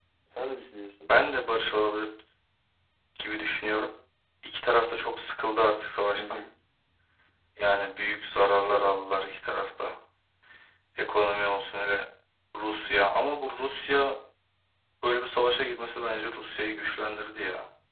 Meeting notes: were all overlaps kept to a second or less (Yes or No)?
Yes